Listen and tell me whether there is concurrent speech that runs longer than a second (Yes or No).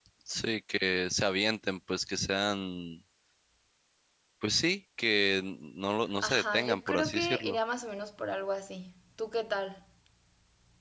Yes